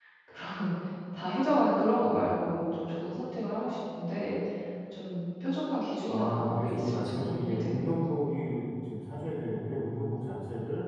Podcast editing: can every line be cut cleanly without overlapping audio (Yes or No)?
No